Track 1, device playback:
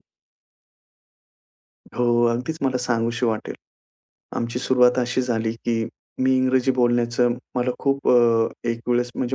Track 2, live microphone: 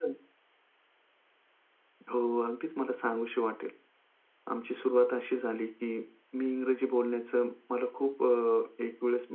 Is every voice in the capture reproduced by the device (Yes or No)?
Yes